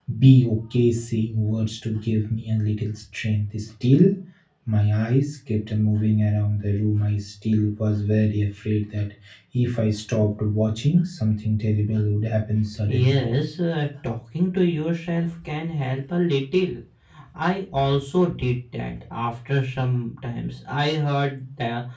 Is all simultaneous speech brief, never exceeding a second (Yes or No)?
Yes